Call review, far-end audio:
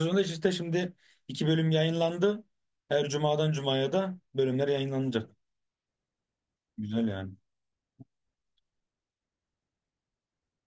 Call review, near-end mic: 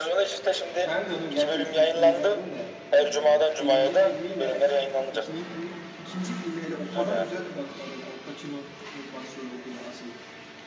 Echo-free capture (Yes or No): No